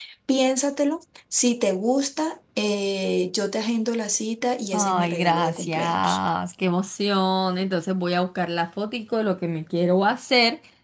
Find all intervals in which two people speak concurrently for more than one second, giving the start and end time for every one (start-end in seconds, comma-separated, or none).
4.7-6.2